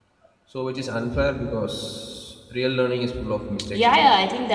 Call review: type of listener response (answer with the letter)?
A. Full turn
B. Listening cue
A